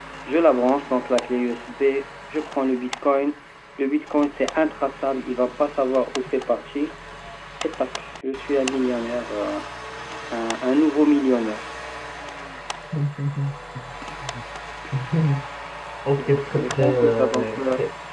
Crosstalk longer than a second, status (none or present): present